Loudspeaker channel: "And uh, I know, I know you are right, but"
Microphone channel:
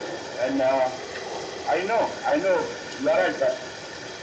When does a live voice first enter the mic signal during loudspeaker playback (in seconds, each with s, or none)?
none